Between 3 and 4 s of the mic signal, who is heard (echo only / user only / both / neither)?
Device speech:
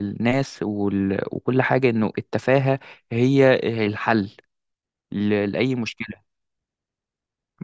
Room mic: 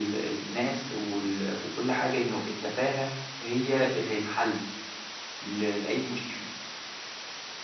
echo only